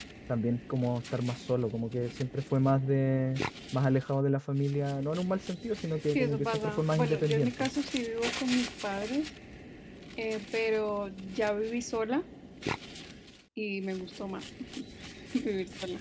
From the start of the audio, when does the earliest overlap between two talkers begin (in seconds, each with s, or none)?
6.1 s